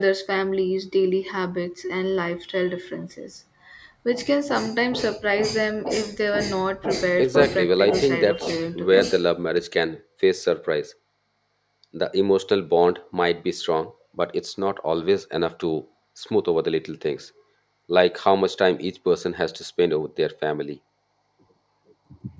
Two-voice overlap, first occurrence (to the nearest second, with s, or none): 7 s